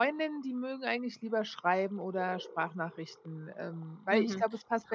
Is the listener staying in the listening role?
No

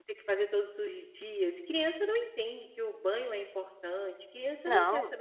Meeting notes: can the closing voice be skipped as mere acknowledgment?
Yes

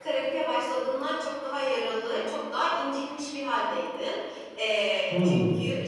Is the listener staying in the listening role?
Yes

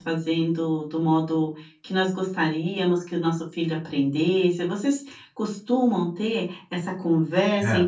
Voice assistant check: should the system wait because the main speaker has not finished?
Yes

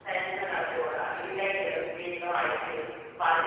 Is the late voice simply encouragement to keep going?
Yes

